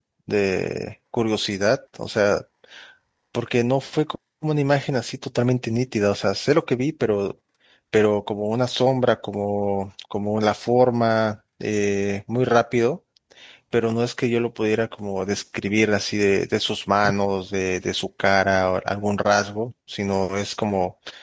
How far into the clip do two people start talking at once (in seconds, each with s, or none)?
none